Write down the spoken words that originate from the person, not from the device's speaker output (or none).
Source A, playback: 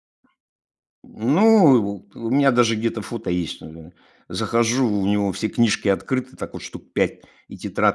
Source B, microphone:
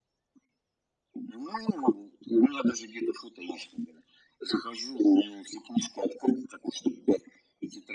none